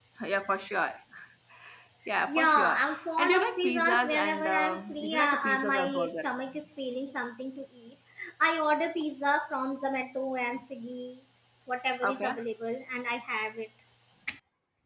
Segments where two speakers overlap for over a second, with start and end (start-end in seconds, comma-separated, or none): 2.3-6.3